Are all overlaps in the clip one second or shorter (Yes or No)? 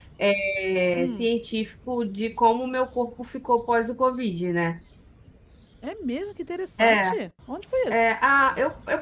Yes